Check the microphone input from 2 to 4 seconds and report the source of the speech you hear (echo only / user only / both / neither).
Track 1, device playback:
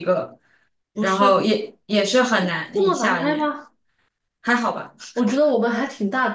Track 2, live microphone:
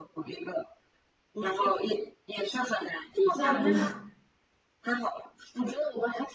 both